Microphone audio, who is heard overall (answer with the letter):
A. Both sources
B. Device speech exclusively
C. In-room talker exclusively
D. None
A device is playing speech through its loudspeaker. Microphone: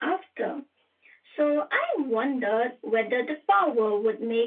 B